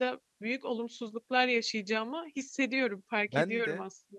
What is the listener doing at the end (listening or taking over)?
taking over